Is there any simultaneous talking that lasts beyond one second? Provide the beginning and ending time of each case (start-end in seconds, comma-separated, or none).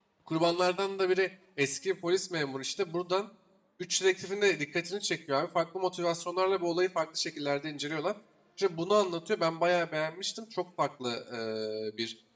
none